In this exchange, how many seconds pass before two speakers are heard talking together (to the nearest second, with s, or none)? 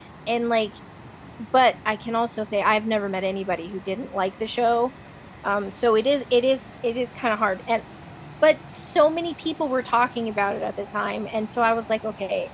none